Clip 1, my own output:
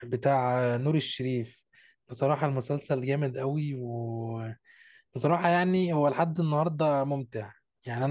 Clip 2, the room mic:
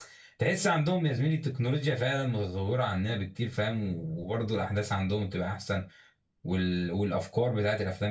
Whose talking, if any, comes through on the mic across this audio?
user only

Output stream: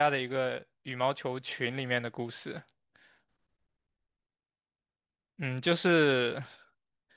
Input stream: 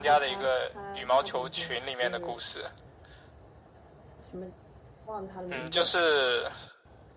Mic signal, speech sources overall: both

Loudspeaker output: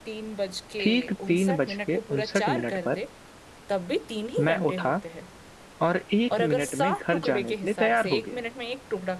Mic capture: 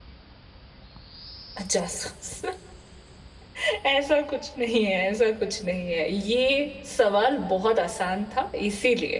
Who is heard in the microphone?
user only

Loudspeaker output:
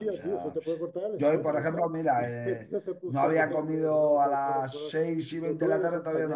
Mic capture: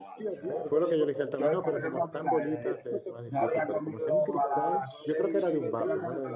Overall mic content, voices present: both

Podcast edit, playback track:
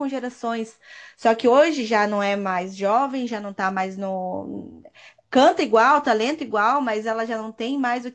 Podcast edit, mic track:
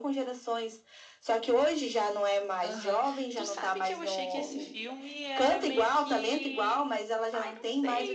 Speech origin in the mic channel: both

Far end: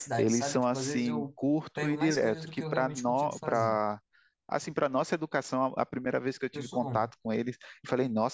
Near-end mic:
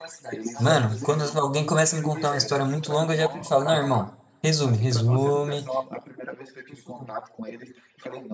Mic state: both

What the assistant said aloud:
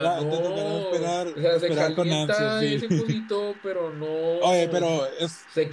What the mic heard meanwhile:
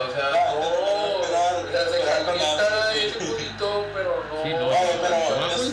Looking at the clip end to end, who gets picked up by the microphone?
both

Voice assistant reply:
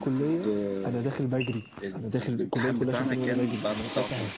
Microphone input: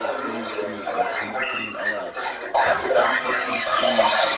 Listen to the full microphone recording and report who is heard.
both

